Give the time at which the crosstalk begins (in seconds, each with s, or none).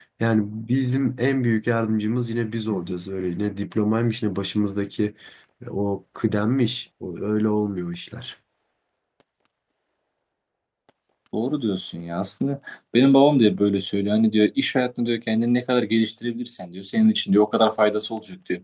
none